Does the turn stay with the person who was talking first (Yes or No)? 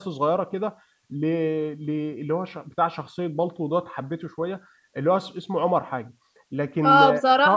No